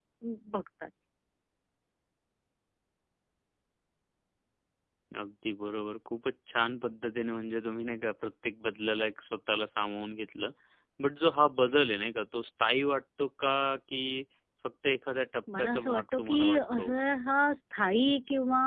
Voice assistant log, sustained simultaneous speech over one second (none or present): present